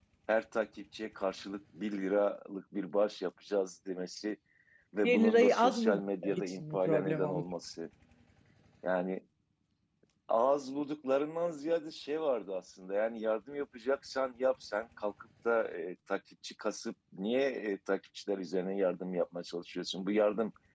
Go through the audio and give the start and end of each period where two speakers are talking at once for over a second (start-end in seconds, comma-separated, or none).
5.0-7.4